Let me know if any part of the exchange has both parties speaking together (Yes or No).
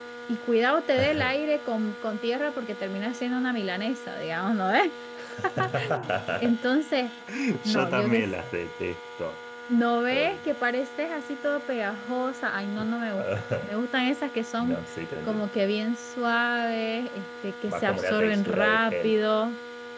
Yes